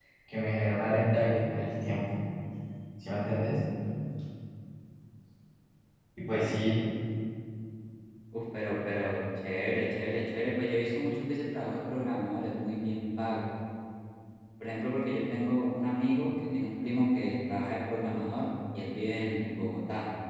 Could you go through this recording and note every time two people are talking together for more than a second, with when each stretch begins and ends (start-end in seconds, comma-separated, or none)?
none